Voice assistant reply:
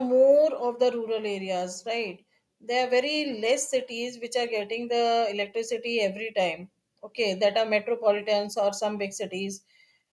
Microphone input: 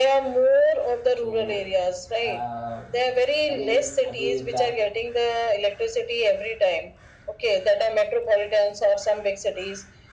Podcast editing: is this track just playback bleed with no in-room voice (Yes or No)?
No